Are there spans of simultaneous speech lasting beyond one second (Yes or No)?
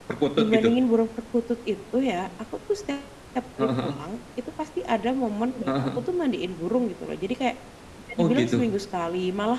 No